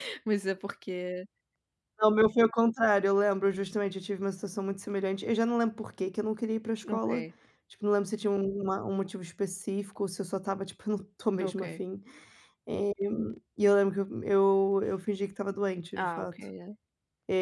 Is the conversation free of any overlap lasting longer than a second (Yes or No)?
Yes